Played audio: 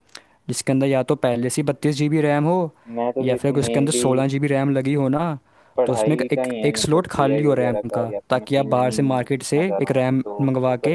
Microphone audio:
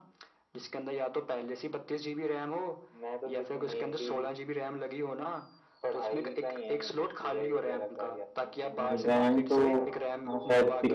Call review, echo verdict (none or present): present